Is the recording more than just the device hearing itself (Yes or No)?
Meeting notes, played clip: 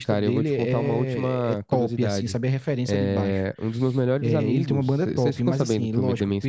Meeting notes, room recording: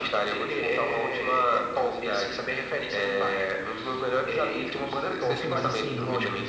Yes